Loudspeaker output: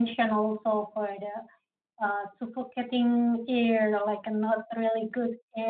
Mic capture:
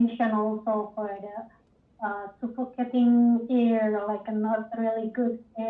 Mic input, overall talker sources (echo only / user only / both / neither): echo only